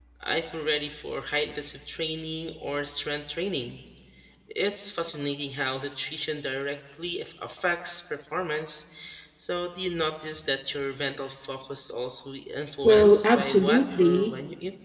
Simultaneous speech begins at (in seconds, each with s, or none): 12.8 s